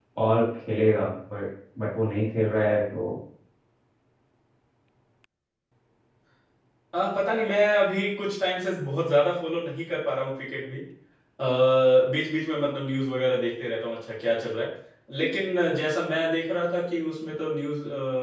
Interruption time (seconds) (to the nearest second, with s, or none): none